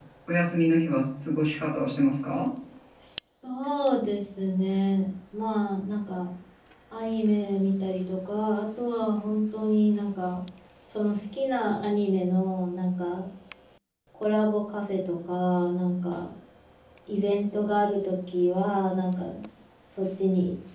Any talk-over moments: No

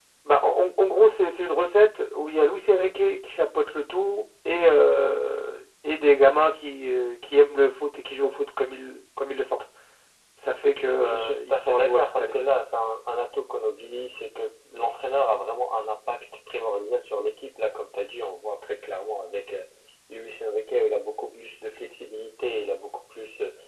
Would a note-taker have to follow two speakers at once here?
Yes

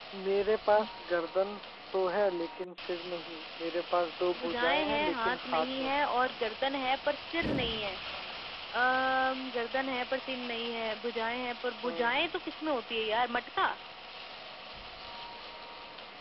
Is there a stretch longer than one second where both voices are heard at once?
Yes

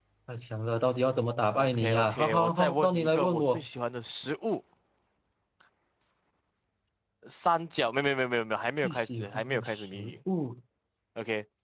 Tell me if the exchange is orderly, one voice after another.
No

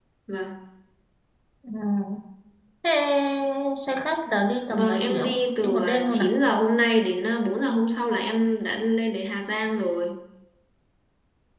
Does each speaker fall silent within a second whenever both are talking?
No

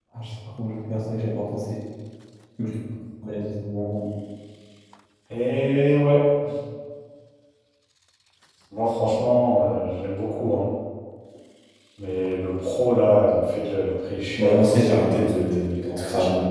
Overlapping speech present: Yes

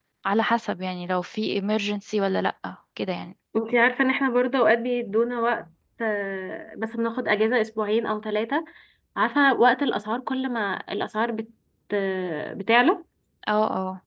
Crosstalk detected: No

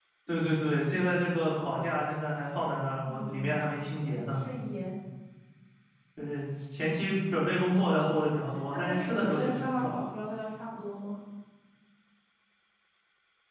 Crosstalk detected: Yes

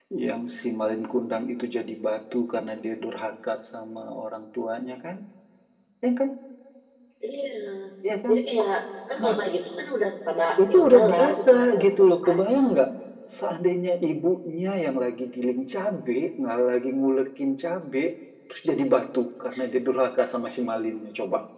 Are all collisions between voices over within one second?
No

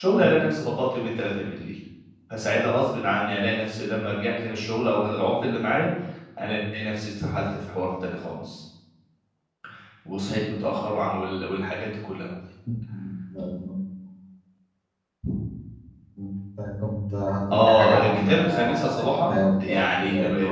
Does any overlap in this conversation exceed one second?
Yes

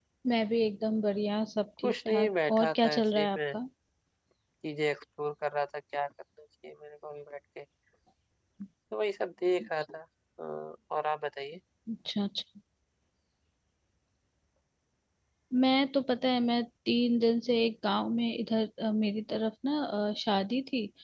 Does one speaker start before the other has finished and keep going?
Yes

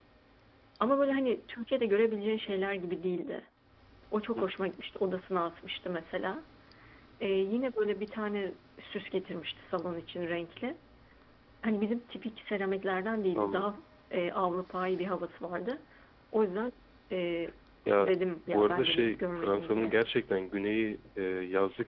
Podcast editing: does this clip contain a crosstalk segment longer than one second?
Yes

